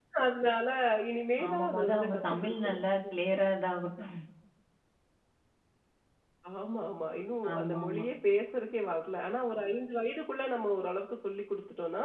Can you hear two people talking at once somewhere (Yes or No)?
Yes